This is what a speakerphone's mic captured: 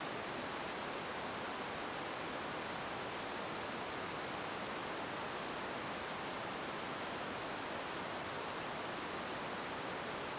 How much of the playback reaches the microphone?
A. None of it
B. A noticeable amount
A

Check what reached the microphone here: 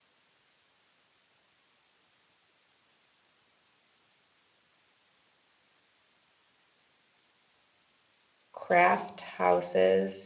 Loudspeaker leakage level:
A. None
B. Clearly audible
A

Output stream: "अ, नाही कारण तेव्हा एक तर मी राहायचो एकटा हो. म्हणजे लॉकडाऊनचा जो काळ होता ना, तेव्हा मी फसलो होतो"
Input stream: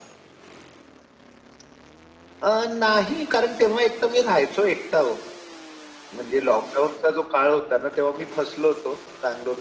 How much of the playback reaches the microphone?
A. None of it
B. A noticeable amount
B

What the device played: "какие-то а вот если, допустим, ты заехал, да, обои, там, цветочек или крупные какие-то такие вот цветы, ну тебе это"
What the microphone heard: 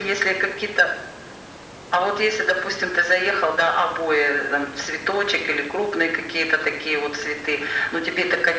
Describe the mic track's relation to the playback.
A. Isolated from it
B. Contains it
B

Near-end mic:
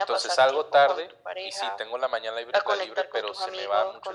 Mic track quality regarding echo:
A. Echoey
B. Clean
A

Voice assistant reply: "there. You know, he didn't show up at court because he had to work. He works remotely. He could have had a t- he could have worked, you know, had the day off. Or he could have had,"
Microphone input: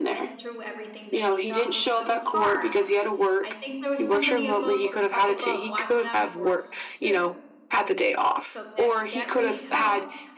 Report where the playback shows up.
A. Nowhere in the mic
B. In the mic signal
B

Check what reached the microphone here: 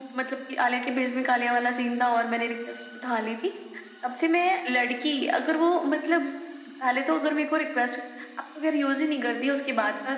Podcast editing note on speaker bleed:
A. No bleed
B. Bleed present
B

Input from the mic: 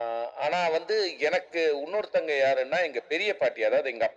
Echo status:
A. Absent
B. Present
B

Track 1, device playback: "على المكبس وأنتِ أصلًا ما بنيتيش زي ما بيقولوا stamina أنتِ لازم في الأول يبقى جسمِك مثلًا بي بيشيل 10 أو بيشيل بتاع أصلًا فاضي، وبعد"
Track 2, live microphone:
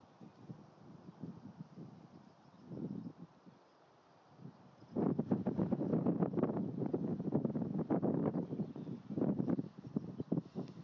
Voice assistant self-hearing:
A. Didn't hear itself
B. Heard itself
A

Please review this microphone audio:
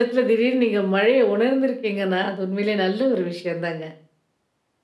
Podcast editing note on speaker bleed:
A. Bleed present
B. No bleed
A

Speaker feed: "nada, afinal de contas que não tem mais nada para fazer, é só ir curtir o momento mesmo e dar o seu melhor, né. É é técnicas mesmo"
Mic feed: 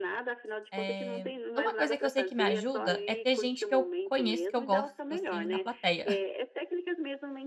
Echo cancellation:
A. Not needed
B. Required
B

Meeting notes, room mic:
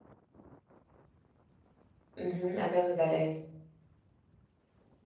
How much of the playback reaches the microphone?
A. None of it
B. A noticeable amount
A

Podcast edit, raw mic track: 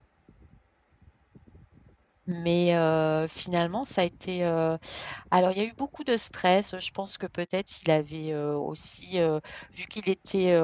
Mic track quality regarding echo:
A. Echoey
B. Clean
B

